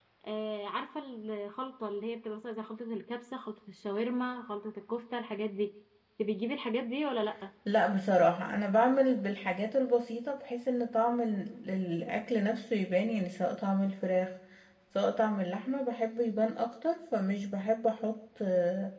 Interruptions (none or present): none